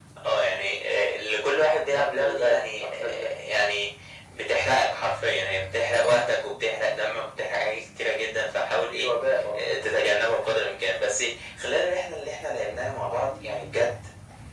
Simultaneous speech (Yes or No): Yes